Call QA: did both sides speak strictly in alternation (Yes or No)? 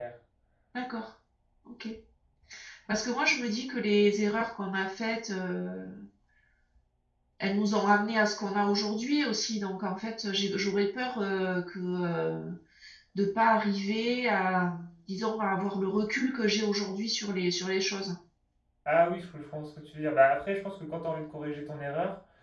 Yes